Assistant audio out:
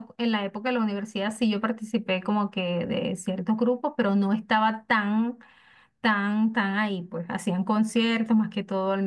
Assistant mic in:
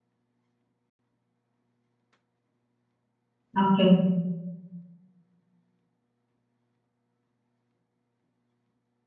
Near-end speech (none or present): present